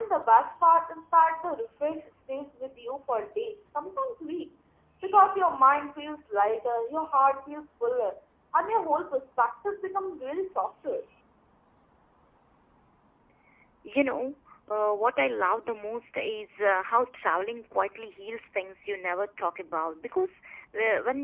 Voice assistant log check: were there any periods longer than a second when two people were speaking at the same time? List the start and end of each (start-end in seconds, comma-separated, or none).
none